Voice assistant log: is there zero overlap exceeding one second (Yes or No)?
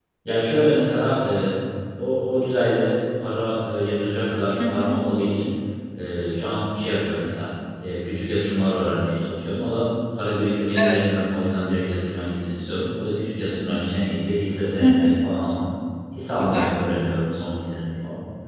Yes